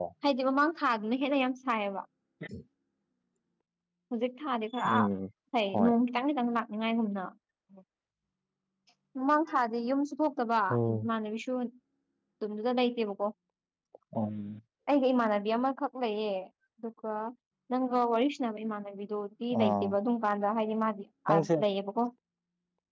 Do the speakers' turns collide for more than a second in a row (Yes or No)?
No